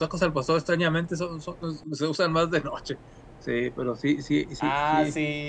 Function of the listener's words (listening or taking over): taking over